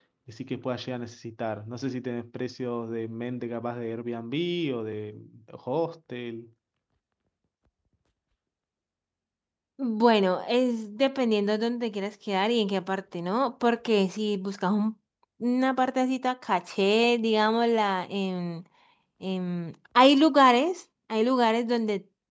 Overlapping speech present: No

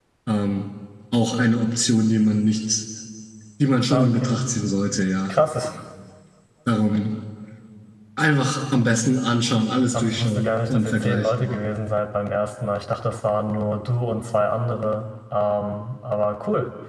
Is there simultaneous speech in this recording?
Yes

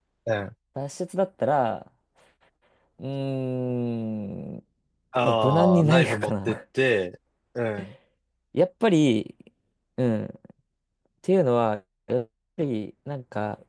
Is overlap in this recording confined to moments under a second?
No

